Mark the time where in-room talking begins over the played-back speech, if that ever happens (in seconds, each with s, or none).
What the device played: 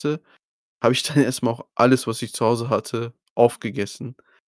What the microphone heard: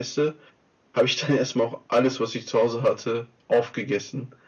none